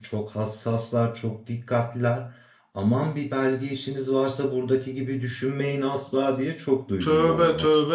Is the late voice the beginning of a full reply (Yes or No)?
Yes